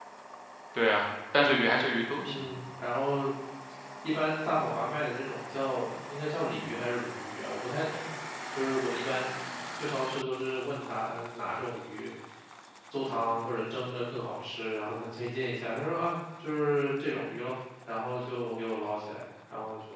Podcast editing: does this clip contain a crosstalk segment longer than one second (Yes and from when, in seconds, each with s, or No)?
No